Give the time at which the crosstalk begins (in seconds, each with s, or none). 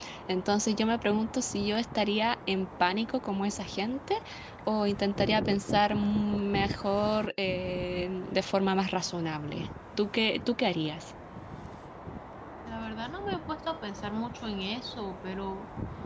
none